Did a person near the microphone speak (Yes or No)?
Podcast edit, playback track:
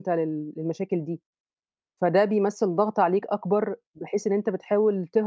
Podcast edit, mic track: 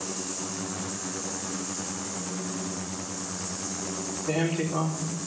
Yes